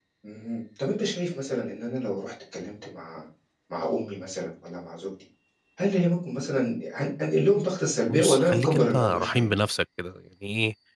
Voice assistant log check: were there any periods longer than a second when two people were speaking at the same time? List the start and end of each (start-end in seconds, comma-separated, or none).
8.1-9.4